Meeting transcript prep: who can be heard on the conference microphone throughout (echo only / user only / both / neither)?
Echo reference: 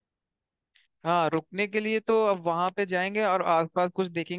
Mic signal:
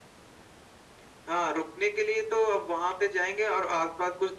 echo only